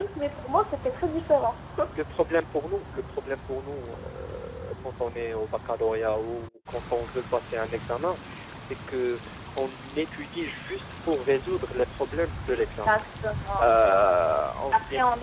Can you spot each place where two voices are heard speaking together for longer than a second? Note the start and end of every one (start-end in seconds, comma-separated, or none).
none